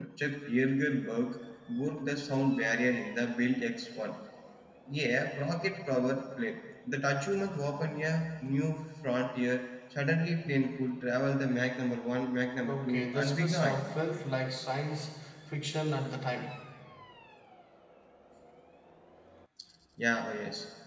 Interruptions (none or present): present